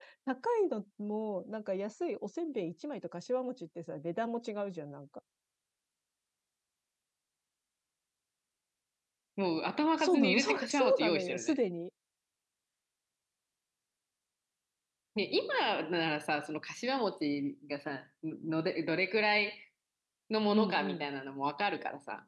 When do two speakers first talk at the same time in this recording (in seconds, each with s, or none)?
10.0 s